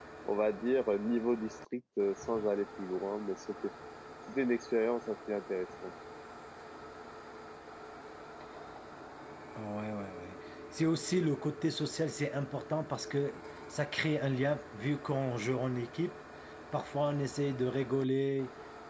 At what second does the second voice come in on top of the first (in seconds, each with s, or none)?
none